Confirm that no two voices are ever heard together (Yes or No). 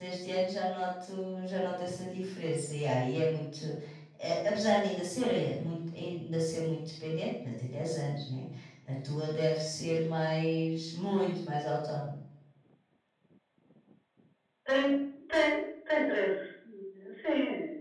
Yes